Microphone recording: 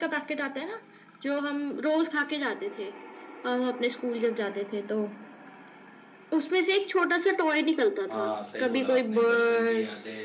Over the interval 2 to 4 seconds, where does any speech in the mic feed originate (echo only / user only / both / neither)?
echo only